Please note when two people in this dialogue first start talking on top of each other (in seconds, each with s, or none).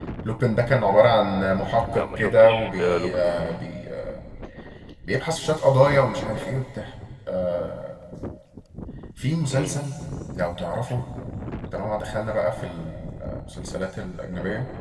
2.0 s